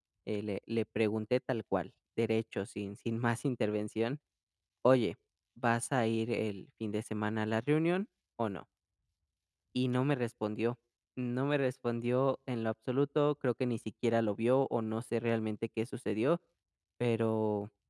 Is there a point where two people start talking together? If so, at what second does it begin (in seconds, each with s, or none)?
none